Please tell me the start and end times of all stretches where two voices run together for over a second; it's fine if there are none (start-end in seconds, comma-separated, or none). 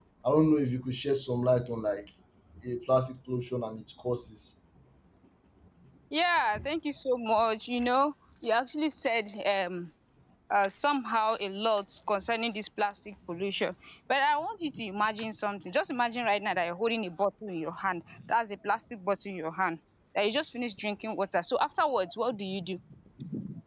none